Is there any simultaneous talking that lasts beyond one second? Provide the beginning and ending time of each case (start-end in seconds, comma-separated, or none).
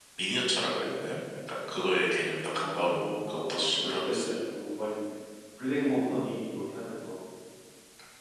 2.6-4.2